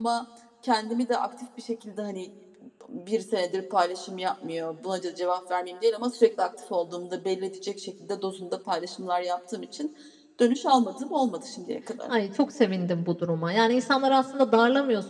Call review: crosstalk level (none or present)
none